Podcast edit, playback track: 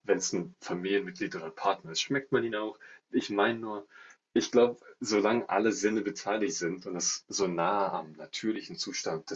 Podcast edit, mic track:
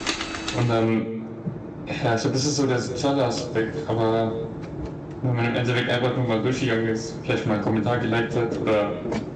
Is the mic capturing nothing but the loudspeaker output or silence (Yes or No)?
No